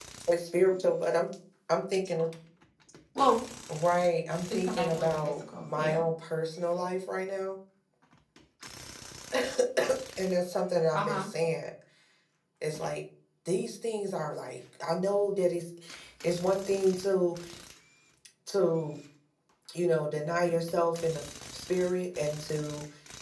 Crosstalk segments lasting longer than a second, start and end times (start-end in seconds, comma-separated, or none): 4.5-6.0